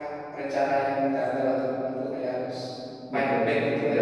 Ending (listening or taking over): taking over